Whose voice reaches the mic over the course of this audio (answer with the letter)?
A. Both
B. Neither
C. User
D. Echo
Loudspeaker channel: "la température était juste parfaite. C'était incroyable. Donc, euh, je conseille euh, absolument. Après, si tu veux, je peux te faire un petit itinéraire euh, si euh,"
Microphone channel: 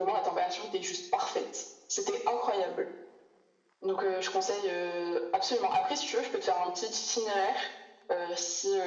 D